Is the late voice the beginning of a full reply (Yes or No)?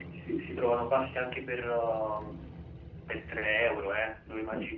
Yes